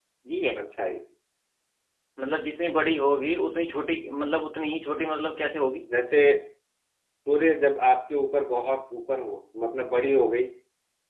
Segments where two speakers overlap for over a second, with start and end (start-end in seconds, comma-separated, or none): none